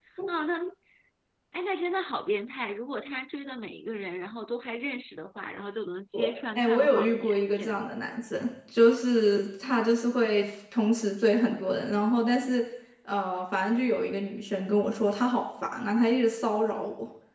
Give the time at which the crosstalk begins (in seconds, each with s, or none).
6.1 s